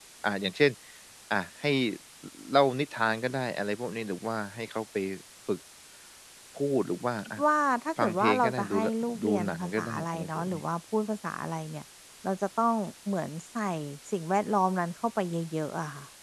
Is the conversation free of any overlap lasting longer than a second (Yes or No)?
No